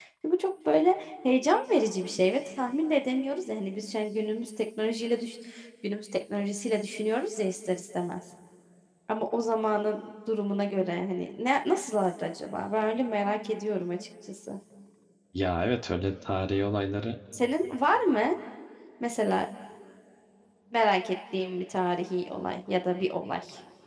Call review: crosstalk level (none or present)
none